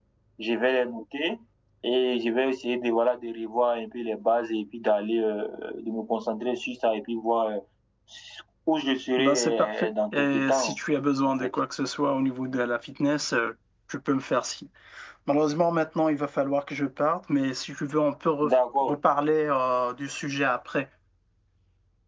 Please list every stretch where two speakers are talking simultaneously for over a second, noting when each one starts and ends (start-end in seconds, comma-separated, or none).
9.2-10.8